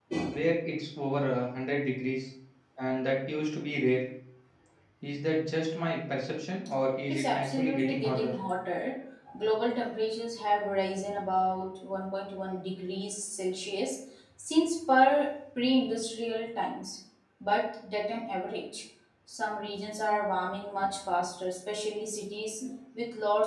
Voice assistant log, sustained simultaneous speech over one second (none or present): present